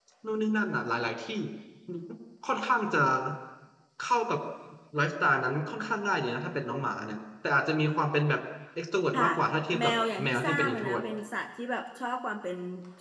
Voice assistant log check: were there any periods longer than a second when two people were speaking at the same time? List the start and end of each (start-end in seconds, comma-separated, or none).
9.8-11.0